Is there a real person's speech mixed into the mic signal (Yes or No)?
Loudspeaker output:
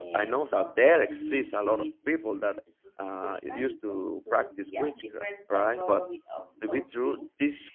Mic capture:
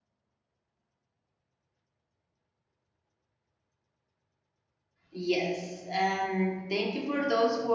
Yes